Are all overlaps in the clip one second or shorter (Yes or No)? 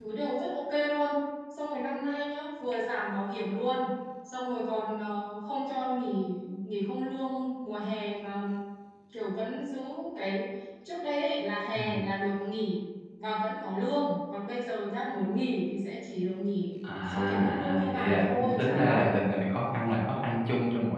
No